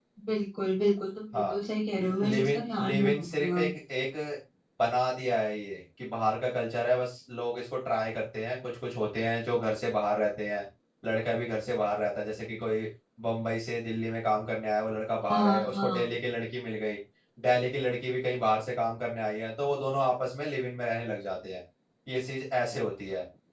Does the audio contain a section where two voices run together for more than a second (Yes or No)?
Yes